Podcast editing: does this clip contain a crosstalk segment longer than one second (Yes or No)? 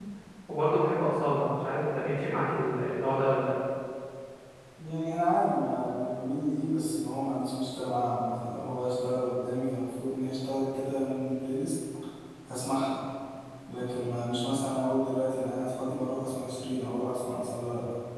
No